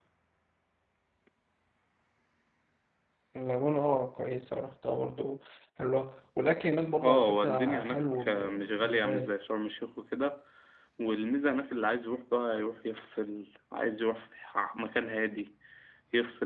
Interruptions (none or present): present